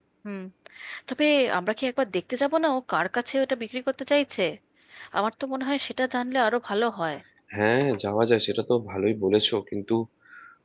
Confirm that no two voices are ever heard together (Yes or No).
Yes